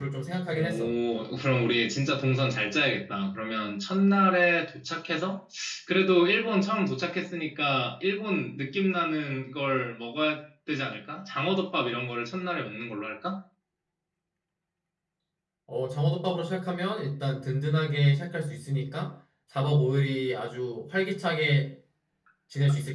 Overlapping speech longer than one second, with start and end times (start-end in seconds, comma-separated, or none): none